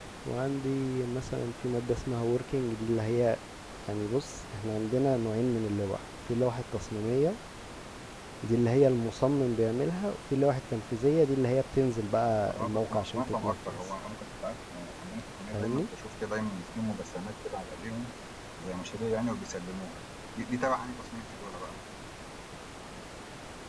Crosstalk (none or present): present